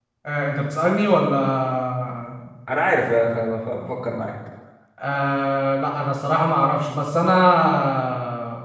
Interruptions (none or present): none